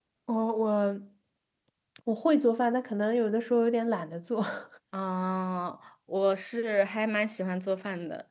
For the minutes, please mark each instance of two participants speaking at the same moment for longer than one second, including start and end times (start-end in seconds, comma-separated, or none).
none